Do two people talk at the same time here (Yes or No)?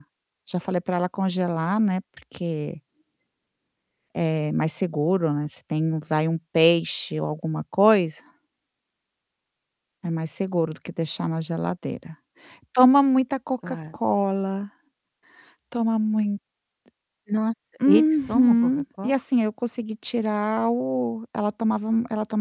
Yes